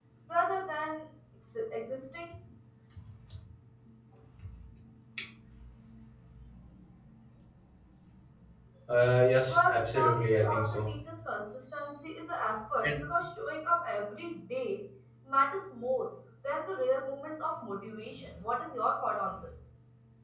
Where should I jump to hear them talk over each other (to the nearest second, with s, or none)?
9 s